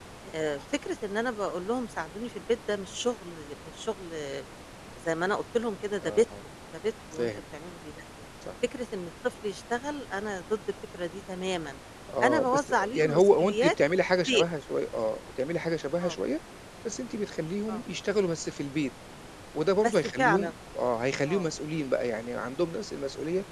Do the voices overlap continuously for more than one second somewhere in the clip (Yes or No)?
Yes